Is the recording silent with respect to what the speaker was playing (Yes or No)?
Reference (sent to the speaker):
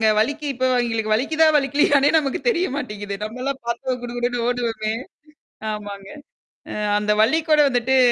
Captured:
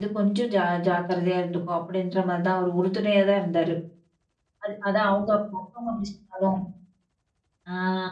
Yes